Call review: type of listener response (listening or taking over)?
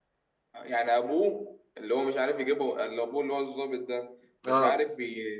listening